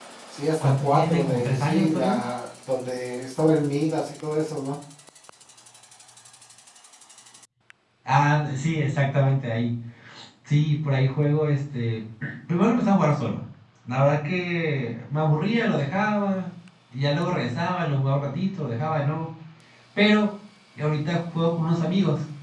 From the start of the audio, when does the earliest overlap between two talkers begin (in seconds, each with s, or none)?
0.6 s